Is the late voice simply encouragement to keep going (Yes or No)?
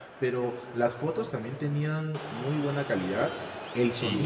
Yes